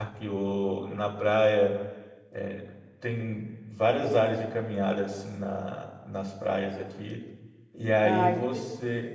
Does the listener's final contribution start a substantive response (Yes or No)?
No